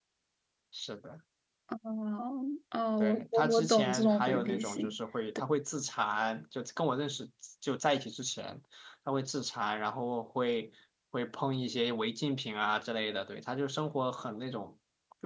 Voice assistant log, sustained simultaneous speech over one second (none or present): present